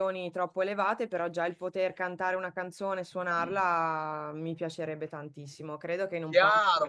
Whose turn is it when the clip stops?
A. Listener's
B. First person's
A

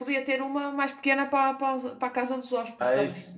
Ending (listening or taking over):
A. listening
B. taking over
B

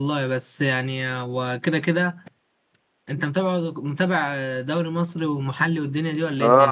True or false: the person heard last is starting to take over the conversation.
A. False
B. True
B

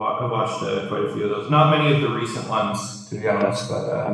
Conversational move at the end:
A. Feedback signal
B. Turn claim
B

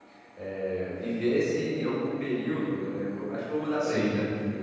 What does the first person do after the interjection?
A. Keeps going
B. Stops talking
A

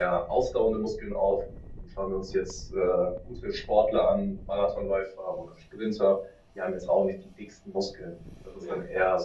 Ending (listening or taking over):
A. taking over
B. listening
B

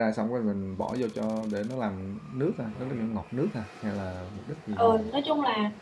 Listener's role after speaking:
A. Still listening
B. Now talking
B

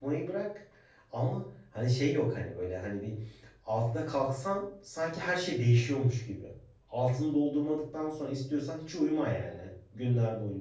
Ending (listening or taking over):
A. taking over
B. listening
B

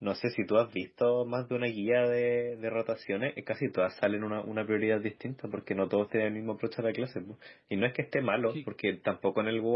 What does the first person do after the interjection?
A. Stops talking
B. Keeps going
B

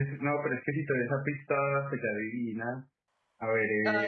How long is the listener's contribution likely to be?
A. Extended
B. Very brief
B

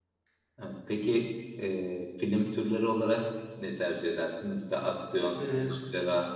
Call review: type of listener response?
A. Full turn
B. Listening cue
B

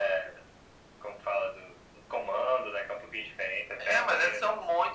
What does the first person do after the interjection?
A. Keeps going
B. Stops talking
B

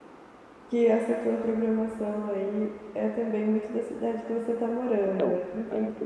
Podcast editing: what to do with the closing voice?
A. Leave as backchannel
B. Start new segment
B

